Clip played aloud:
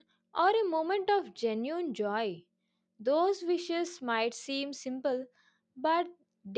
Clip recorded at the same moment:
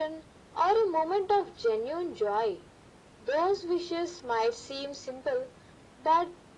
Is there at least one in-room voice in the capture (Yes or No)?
No